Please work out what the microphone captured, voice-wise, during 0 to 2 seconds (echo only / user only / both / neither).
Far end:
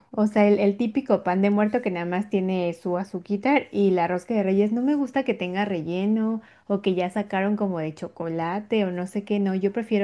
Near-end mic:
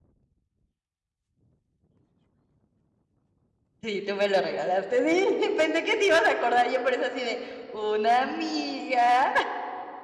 neither